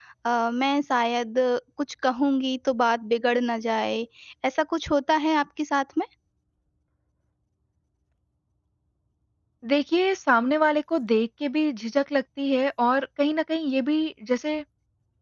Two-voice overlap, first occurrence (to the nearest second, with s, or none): none